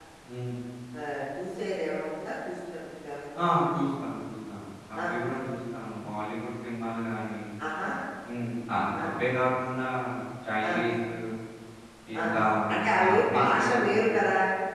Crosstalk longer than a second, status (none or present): present